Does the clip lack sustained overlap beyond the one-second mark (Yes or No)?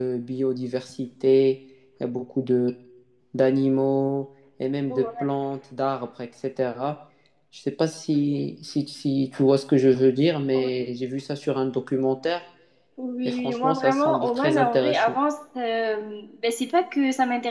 No